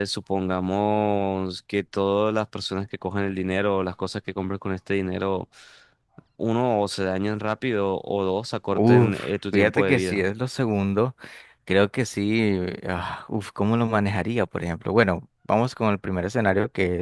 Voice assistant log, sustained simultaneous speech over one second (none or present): present